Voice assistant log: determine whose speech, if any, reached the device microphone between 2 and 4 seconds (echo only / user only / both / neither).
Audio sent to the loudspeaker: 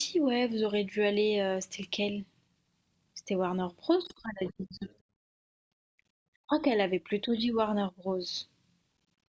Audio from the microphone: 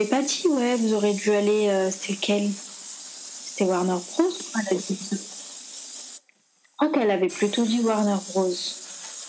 echo only